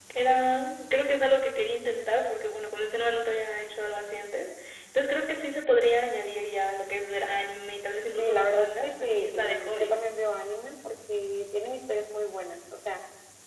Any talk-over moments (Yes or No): Yes